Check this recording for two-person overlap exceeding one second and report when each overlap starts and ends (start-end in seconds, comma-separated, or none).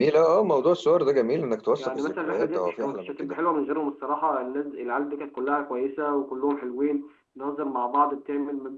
1.8-3.4